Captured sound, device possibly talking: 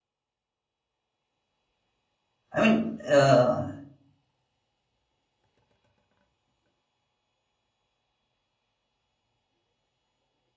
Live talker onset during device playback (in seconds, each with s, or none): 2.5 s